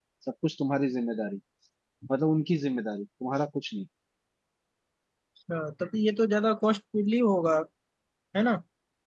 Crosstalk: none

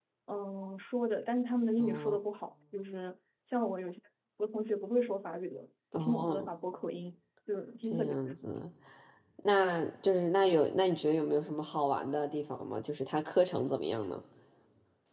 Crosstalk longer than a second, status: none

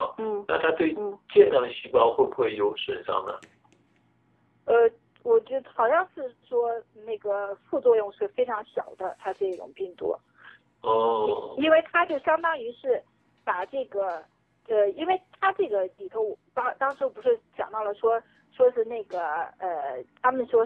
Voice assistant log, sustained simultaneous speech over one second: none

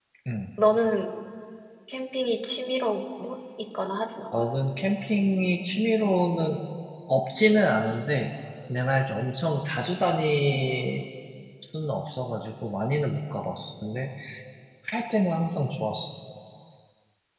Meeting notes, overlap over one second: none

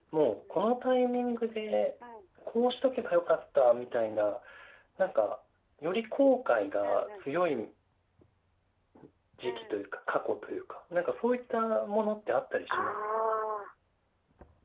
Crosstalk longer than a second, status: none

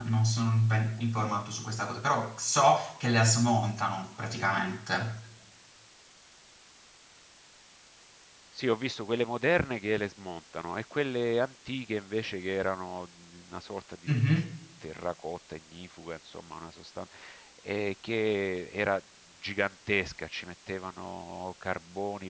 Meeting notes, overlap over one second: none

